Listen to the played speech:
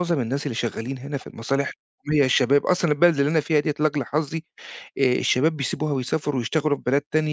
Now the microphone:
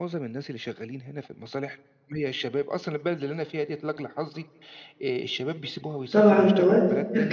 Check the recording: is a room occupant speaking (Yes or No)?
Yes